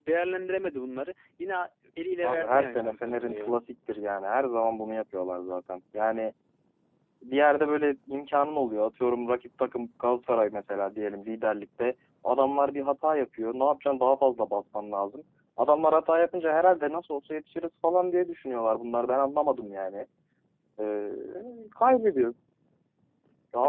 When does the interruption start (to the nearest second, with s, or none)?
2 s